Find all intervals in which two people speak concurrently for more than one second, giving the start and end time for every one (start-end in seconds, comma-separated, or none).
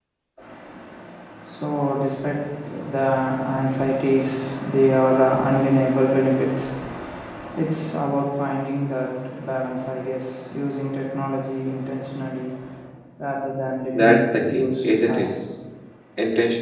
14.0-15.3